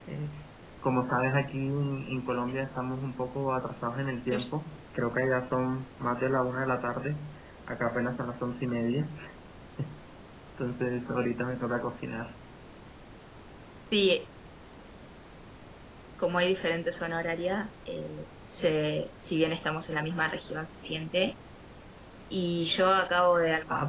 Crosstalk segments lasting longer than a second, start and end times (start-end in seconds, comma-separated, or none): none